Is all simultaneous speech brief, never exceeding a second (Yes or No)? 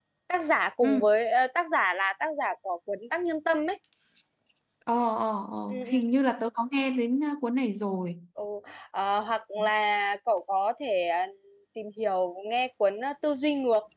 Yes